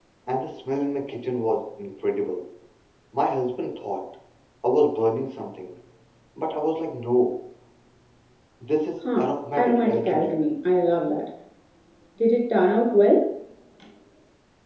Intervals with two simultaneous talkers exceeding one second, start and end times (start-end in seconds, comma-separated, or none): 9.2-10.4